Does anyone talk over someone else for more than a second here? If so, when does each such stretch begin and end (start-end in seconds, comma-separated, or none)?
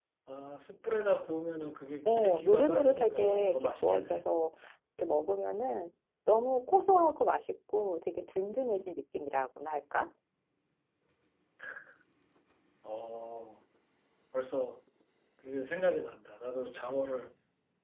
2.0-4.3